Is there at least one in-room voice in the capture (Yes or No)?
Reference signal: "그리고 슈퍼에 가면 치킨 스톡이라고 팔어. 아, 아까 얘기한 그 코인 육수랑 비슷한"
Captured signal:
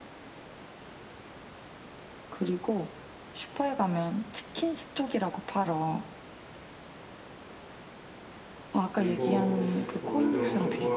Yes